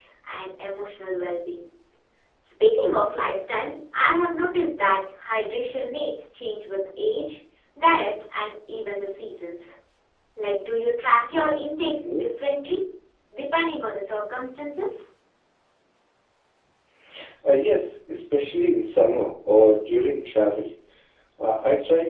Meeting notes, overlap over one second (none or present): none